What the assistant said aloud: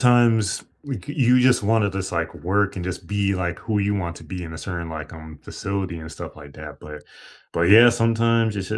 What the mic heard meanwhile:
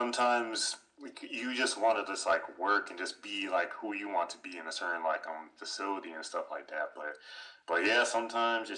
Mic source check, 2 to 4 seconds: echo only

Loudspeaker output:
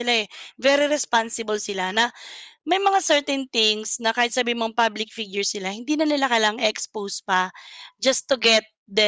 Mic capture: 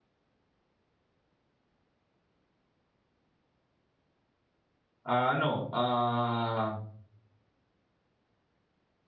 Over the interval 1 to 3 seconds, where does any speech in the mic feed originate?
neither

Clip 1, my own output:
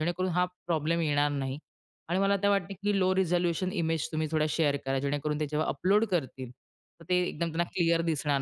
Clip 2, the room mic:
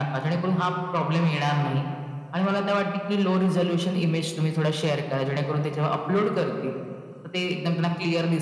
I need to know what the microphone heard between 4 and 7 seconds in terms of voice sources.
echo only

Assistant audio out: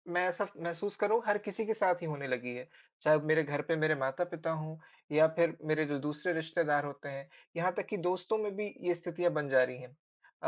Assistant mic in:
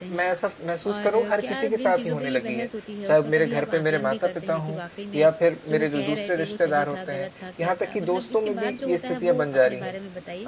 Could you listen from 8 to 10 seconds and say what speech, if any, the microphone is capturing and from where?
both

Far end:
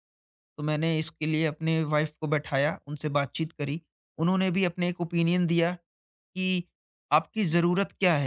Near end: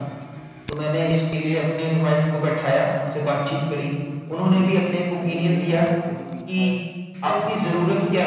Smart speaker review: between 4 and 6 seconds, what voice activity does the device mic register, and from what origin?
both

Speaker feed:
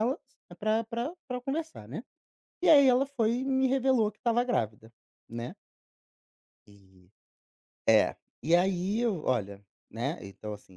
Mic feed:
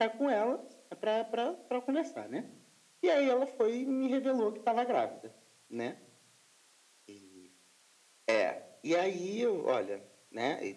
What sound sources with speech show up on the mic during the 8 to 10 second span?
echo only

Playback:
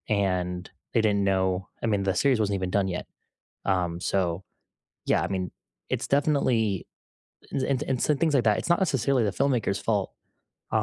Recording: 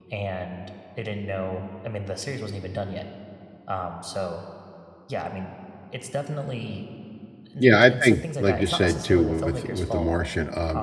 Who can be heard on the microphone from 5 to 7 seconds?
echo only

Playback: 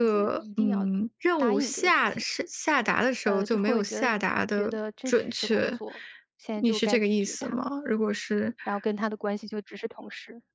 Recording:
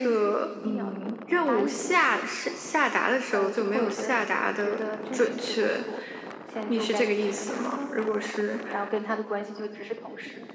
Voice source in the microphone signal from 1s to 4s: echo only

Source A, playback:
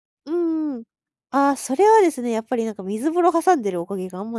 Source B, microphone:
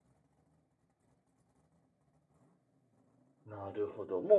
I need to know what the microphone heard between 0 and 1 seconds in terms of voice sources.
neither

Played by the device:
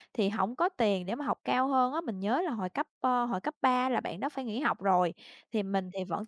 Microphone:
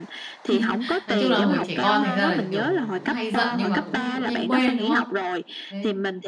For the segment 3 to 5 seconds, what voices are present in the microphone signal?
both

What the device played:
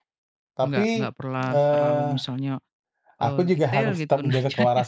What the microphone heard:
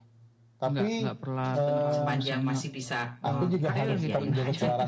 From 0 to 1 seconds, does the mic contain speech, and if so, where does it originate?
echo only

